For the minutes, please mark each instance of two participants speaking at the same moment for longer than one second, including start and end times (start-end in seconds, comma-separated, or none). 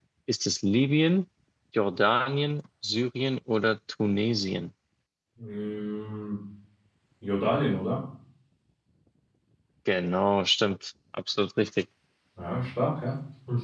none